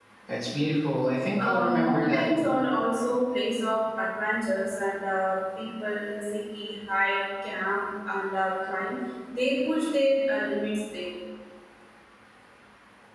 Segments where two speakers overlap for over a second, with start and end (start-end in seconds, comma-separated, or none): 1.4-2.6